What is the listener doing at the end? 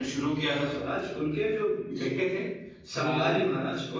listening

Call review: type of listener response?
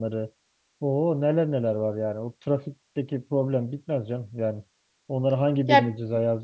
listening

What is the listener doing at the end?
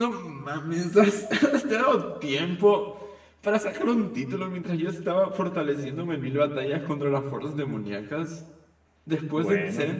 listening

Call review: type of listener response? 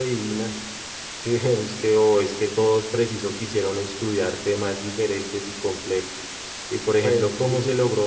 listening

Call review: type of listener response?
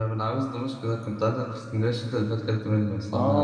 taking over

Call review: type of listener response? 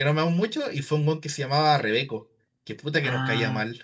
taking over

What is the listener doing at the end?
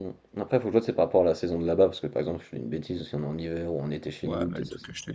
taking over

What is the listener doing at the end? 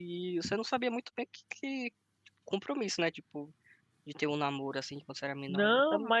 taking over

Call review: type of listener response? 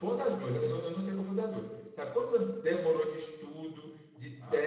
listening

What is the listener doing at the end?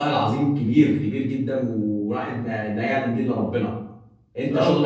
listening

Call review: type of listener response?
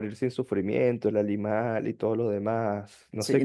taking over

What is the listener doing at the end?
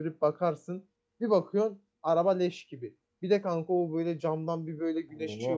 listening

